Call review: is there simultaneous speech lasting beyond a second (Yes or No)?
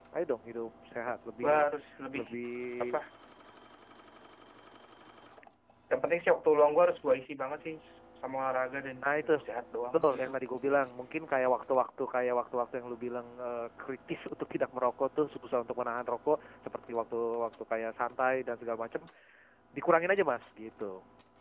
No